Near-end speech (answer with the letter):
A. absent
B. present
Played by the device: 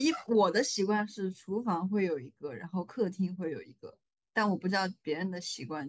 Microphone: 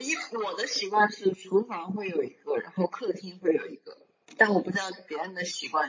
A